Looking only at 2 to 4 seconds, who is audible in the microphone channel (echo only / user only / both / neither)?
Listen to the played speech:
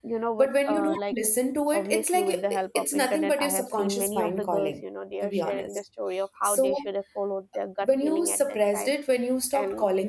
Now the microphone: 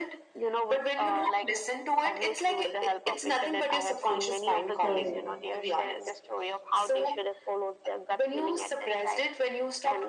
echo only